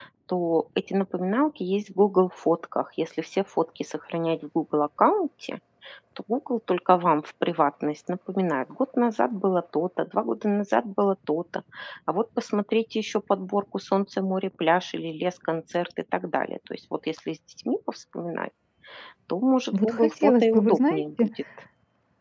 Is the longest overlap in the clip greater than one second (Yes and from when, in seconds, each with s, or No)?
Yes, from 19.7 s